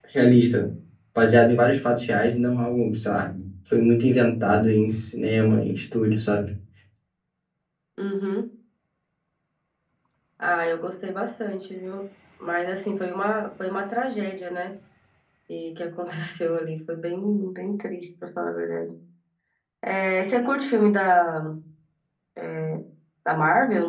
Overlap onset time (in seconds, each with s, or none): none